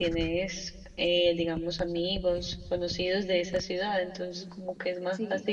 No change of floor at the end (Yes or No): Yes